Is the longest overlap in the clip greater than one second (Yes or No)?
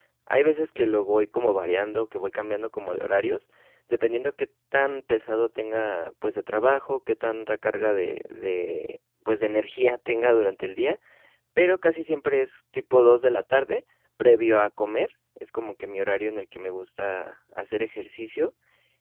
No